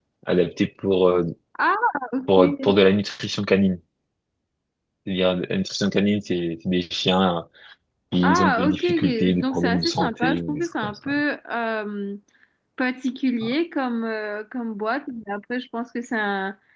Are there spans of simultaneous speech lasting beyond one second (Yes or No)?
Yes